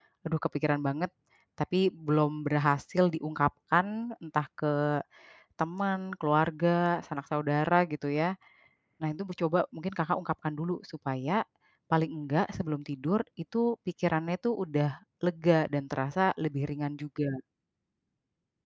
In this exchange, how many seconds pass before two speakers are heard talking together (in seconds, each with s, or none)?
none